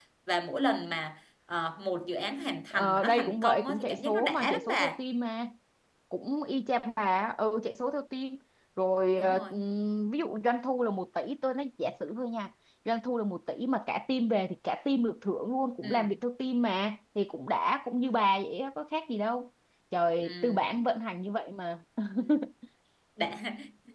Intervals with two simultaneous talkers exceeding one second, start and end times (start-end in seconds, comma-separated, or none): 2.7-5.0